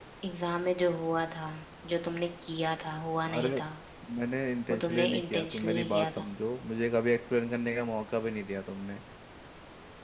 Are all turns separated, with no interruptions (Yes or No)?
No